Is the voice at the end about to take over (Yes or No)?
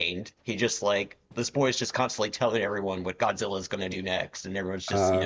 No